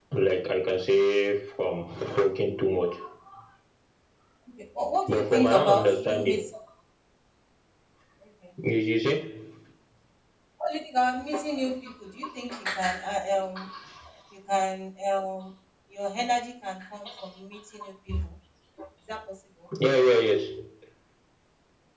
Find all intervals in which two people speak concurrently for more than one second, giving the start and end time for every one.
5.1-6.4

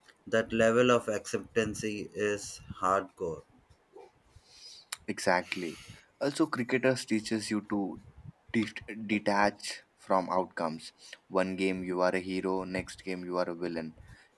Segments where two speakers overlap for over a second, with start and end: none

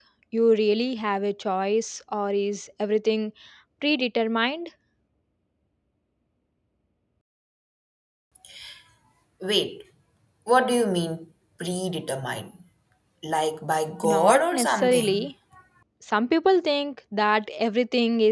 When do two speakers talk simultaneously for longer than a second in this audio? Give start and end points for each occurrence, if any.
14.0-15.3

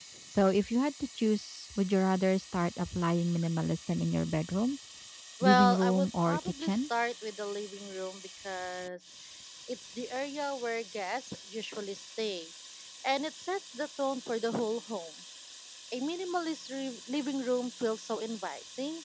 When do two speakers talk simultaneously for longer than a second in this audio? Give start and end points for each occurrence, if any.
5.4-6.8

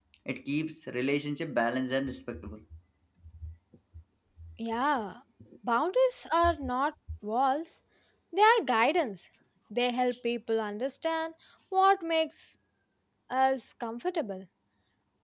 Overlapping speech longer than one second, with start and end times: none

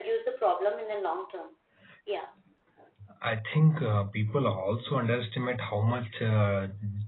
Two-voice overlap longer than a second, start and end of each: none

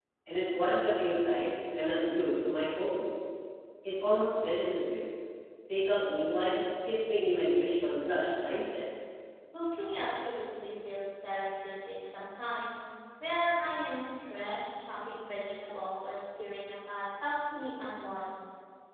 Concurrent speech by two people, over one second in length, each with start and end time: none

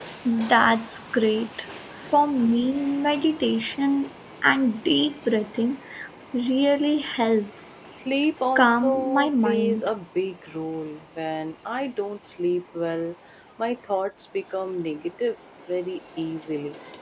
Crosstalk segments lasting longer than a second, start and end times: 8.6-9.9

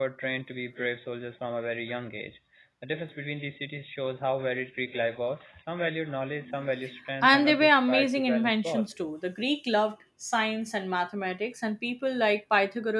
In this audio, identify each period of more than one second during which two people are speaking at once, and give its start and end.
7.2-8.8

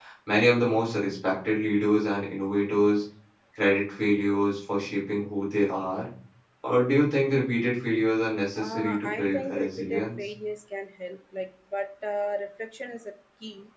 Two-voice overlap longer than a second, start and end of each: 8.6-10.3

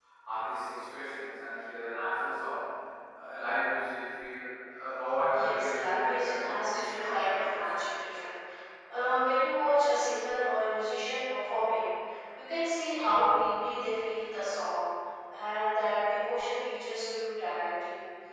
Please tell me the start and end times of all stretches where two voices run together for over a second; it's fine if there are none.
5.4-7.5

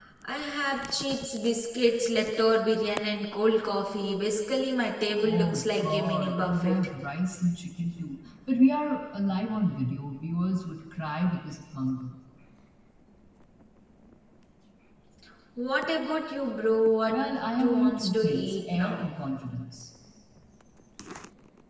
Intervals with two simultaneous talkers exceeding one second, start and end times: 5.2-6.9, 17.6-19.1

